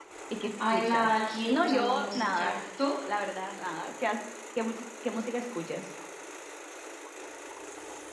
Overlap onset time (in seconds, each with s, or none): 0.7 s